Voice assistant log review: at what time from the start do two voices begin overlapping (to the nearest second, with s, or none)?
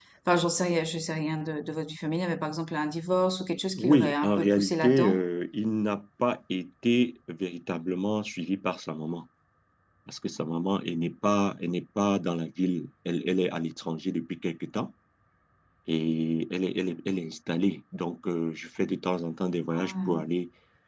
4 s